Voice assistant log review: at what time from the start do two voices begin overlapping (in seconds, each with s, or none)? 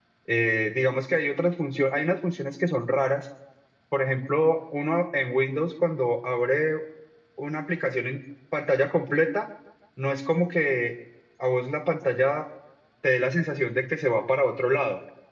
none